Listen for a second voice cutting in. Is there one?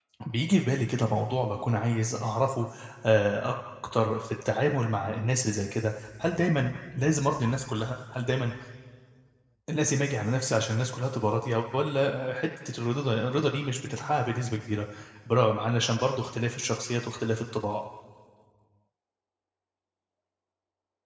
No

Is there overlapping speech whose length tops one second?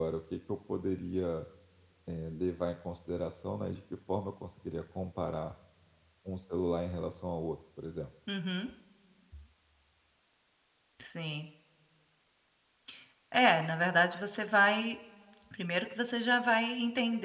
No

